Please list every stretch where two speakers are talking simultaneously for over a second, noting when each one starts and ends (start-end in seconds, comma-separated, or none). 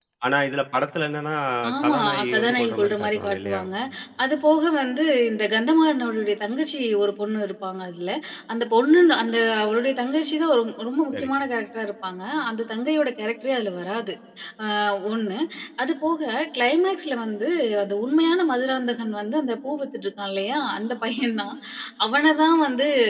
1.8-3.6